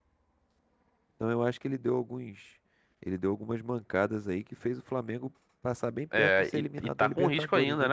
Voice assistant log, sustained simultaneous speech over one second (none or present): present